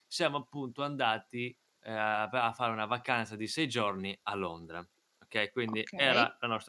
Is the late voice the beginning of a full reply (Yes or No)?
No